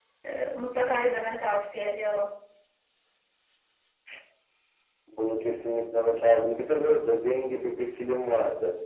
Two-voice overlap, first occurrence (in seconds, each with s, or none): none